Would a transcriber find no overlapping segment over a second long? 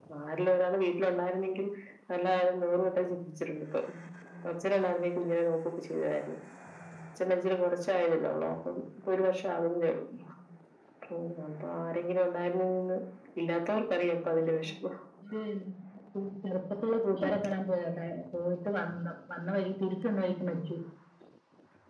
Yes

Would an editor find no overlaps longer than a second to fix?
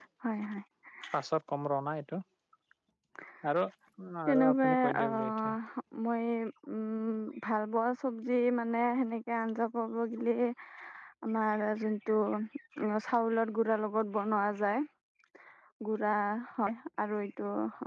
No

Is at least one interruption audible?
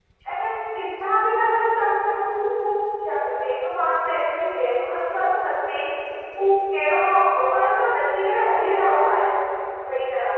No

